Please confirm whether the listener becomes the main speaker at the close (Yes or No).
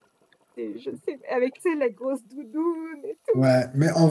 Yes